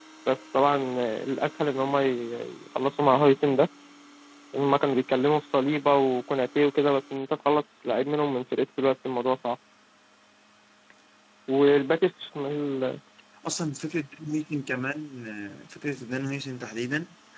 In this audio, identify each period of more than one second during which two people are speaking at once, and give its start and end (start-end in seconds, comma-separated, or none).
none